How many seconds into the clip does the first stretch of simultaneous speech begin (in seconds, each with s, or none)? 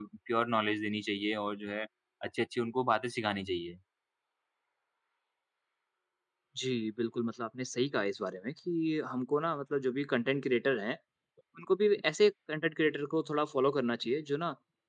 none